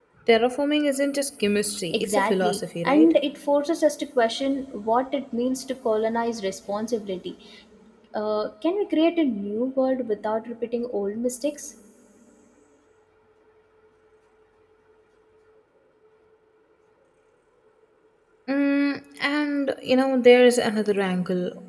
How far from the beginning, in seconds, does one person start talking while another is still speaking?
1.9 s

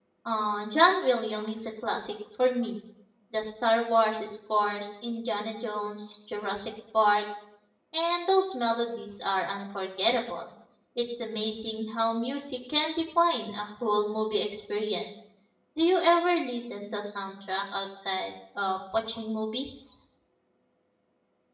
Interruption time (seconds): none

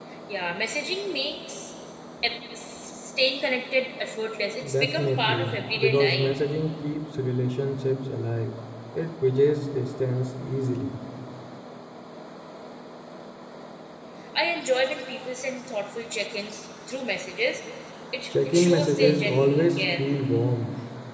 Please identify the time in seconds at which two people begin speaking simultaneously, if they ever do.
4.7 s

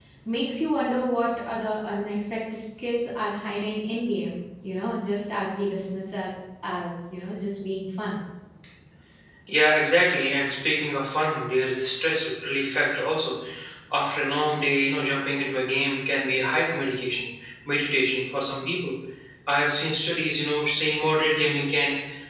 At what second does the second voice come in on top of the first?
none

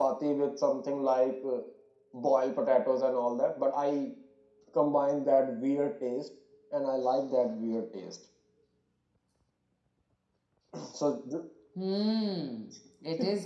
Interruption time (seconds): none

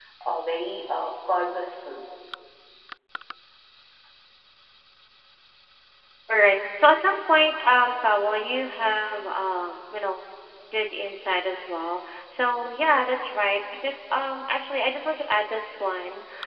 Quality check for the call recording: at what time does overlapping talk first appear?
none

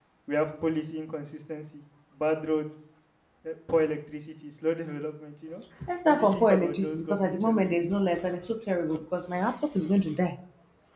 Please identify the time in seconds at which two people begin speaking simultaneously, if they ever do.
6.0 s

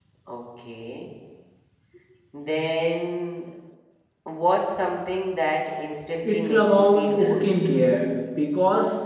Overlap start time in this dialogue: 6.2 s

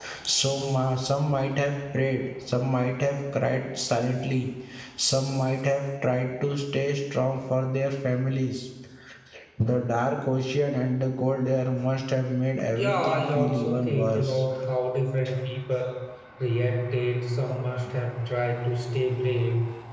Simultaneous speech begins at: 12.7 s

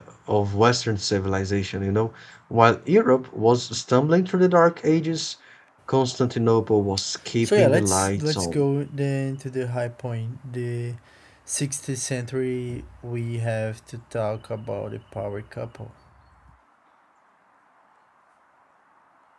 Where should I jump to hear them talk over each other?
7.4 s

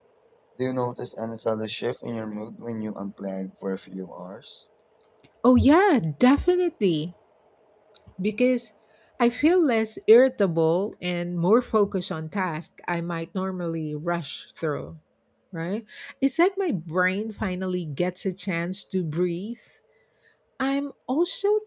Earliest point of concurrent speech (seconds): none

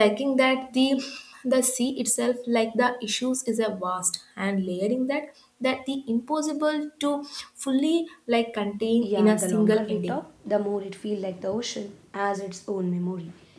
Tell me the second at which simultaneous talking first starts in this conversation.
9.0 s

